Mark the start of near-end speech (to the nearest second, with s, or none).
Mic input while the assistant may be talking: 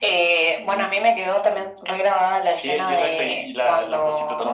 none